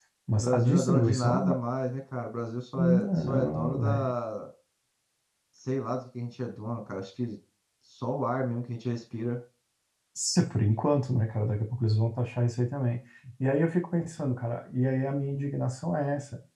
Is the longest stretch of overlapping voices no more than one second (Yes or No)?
No